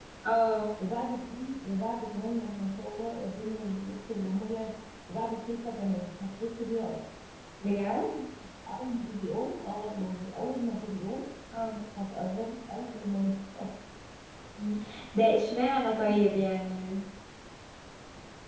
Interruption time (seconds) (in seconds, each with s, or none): none